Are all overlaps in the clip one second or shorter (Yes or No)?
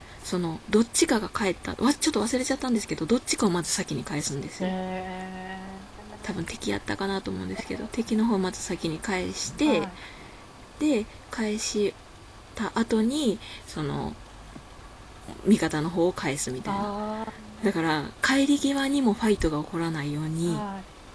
Yes